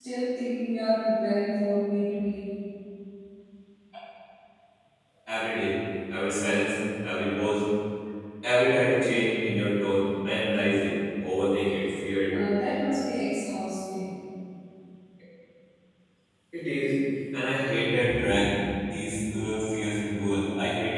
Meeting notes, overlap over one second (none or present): none